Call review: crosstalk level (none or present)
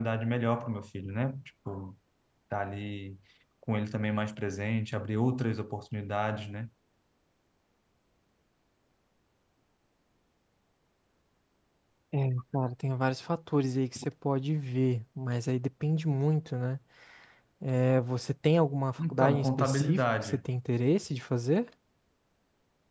present